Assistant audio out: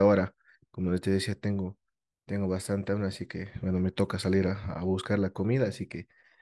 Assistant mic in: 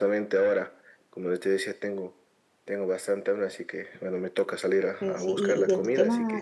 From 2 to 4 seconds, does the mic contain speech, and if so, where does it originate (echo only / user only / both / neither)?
echo only